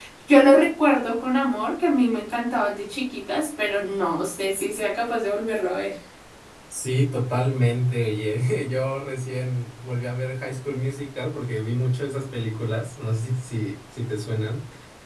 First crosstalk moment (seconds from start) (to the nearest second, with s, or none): none